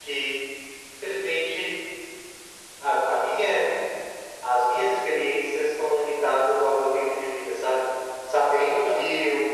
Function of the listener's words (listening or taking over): listening